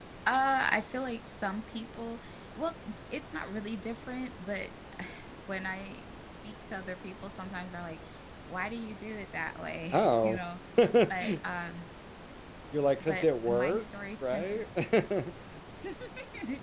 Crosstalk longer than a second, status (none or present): present